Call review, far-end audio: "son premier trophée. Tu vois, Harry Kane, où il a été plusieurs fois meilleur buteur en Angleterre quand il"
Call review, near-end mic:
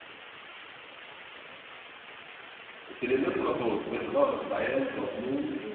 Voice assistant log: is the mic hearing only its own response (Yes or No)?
No